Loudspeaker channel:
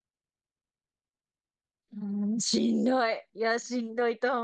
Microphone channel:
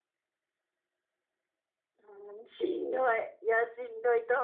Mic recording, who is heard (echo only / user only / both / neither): echo only